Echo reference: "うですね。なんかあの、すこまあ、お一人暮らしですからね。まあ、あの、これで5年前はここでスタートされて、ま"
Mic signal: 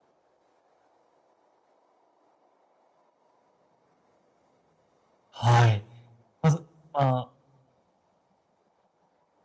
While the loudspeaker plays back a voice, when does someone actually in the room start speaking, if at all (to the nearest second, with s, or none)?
5 s